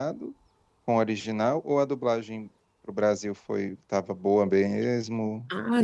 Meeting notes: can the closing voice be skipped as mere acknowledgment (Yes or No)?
No